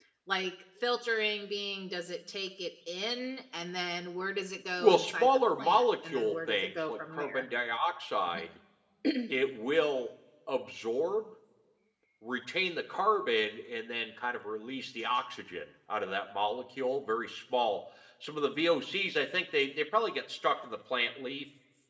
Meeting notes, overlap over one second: present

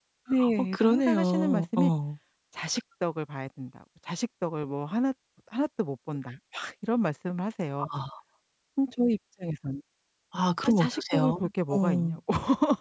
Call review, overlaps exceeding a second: present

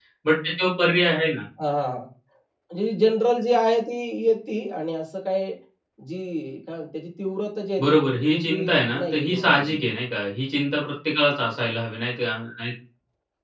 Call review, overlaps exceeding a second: present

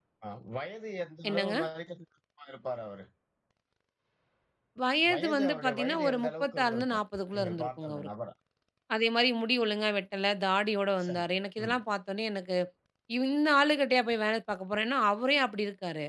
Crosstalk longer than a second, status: present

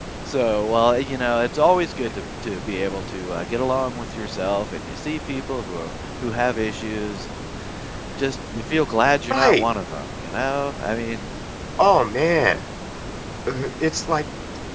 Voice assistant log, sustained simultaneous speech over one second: none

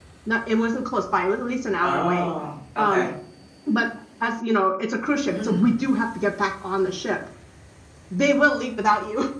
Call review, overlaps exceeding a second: none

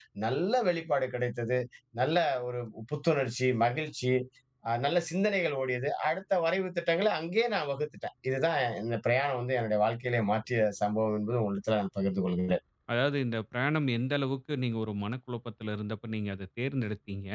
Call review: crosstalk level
none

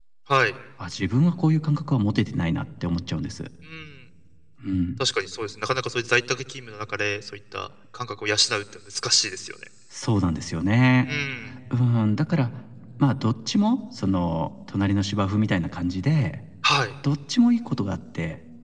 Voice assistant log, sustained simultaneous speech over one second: none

